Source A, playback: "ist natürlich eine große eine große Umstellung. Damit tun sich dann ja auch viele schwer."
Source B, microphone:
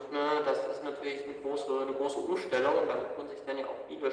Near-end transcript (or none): none